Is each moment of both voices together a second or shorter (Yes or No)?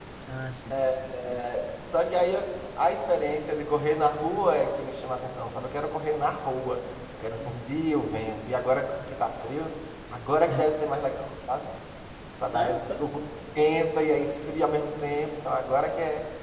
Yes